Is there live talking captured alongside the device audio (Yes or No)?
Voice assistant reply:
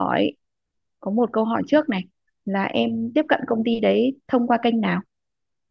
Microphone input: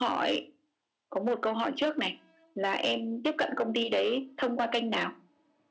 No